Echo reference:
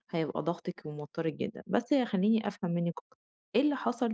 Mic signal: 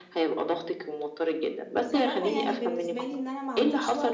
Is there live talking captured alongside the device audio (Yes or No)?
Yes